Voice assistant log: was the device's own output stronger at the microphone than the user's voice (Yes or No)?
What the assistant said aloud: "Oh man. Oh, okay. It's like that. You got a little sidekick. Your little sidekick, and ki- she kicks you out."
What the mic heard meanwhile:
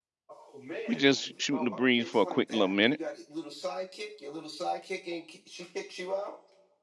No